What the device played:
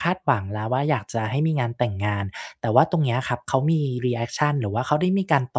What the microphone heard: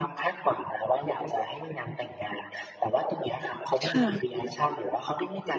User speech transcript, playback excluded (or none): ค่ะ